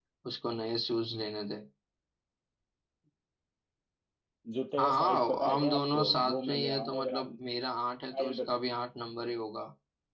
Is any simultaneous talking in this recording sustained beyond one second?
Yes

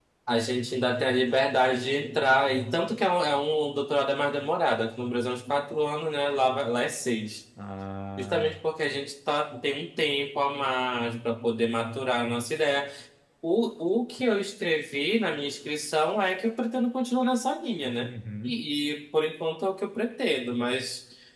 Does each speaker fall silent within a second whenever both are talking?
Yes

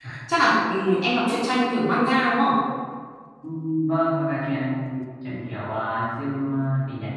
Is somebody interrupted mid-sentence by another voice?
No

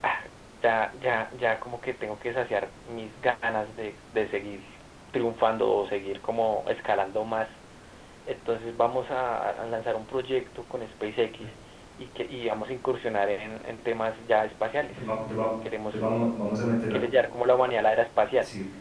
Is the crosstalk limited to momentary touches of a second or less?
Yes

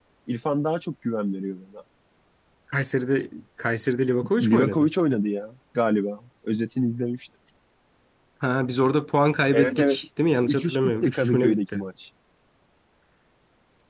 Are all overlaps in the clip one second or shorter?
No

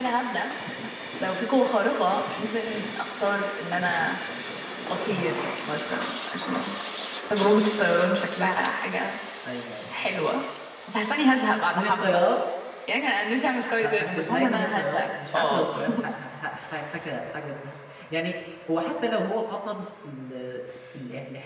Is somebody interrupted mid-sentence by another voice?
Yes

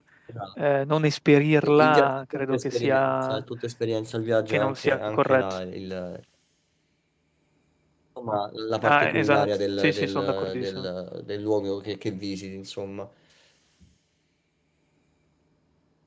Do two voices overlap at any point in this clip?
Yes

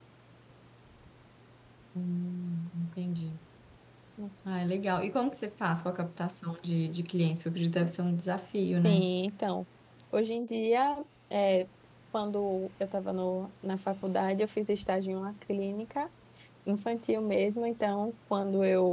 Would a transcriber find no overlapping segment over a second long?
Yes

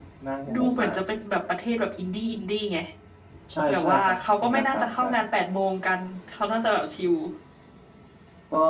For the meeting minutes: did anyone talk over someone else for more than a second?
Yes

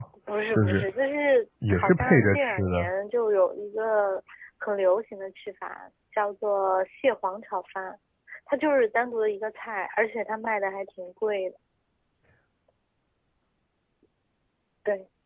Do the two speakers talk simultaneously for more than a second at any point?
Yes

